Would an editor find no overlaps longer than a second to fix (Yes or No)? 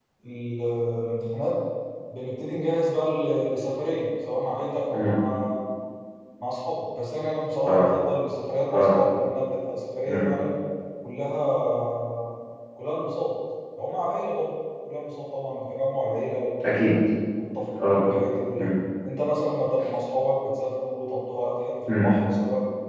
Yes